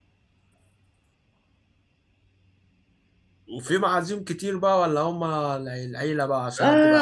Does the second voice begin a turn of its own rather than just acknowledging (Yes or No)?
Yes